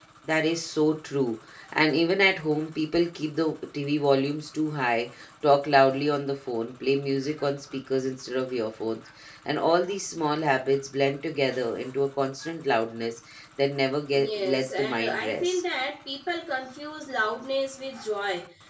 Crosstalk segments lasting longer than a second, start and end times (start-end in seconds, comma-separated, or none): 14.2-15.6